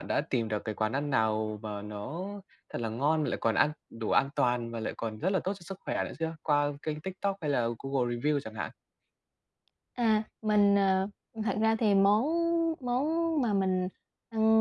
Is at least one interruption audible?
No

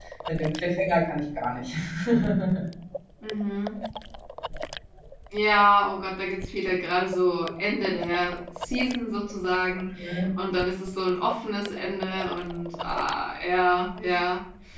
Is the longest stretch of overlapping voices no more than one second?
Yes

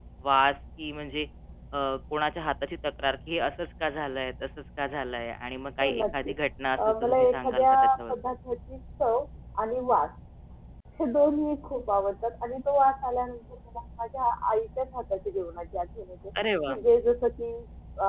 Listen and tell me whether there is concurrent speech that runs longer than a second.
Yes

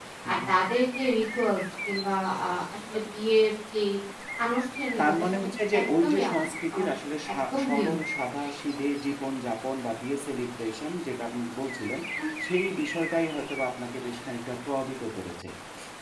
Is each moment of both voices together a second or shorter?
No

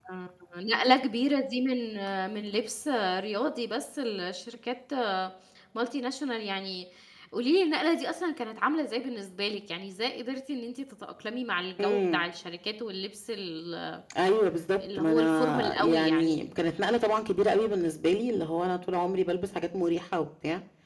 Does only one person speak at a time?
No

